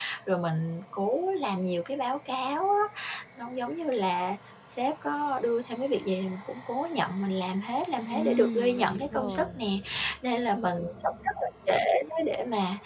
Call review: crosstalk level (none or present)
present